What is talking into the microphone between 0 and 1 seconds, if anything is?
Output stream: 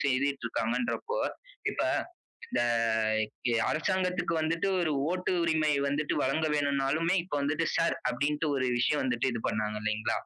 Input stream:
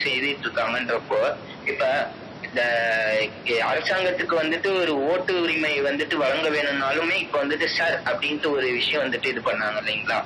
echo only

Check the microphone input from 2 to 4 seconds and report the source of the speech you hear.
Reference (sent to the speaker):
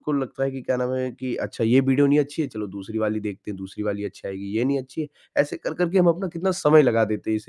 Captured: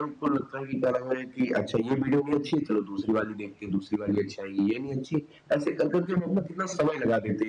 echo only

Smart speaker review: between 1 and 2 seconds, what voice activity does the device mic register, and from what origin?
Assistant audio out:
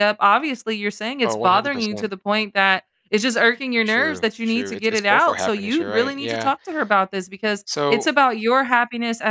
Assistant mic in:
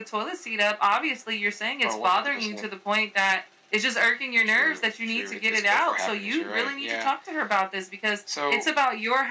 echo only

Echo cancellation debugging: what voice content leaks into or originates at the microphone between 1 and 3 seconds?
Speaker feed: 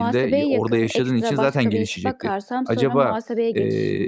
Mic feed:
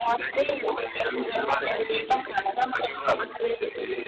echo only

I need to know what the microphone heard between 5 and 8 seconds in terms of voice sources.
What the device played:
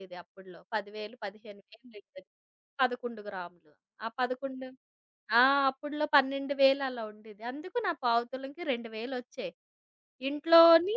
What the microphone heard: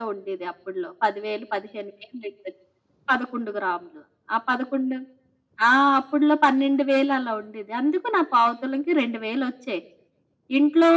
echo only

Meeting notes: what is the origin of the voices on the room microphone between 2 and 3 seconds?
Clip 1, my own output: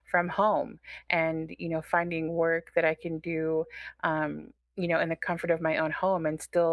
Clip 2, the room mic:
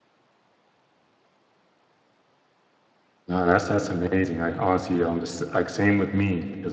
neither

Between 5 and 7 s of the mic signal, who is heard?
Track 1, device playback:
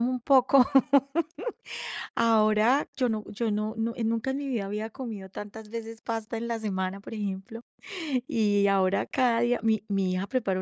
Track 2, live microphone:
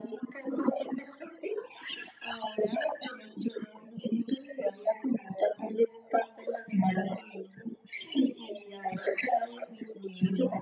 echo only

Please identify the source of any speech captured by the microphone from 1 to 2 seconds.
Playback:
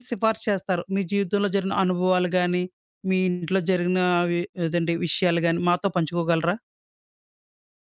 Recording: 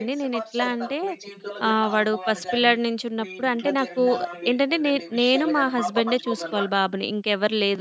both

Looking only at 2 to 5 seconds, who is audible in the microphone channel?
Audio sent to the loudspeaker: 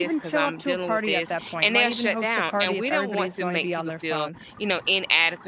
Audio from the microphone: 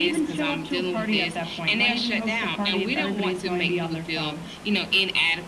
echo only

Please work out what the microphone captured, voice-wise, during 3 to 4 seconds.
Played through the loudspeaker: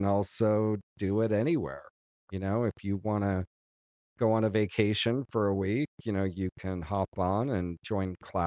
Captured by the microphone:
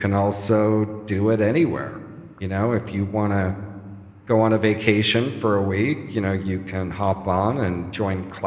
echo only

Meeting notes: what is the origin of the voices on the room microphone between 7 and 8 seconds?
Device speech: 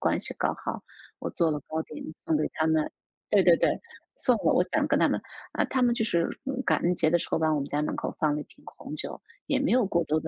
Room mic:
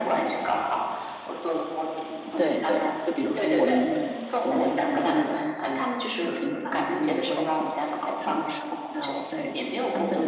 both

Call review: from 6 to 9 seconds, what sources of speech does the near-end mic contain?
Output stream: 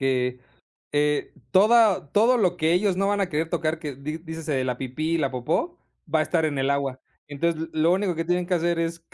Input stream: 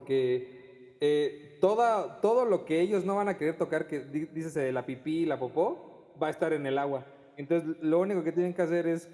echo only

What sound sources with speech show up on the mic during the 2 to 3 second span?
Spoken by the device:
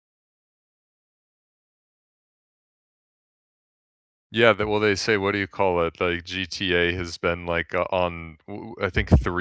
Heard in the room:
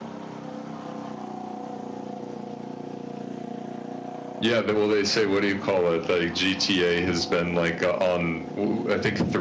neither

